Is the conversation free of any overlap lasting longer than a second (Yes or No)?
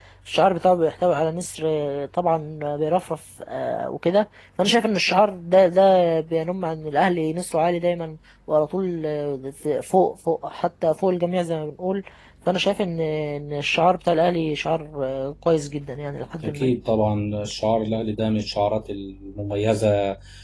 Yes